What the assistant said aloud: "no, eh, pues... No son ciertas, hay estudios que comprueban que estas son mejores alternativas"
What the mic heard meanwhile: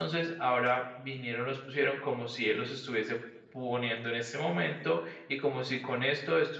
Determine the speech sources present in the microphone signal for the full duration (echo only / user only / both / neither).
user only